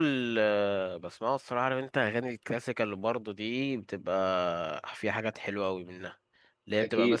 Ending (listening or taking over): listening